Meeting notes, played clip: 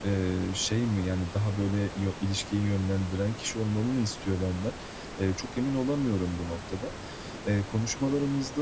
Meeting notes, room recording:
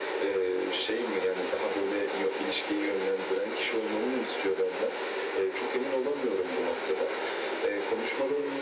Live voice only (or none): none